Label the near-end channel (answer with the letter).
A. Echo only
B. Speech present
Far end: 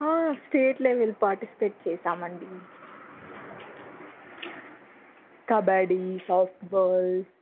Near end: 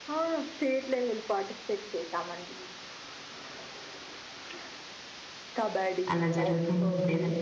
B